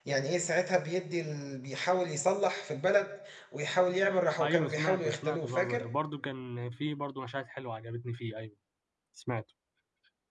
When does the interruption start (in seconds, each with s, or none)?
4.4 s